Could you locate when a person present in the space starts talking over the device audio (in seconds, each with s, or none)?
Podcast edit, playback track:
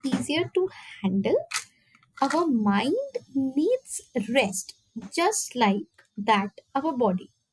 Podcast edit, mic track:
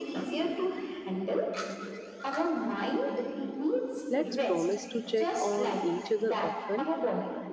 4.1 s